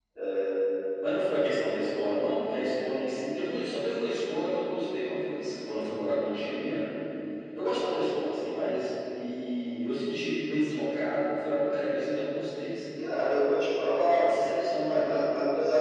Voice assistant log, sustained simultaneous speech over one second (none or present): none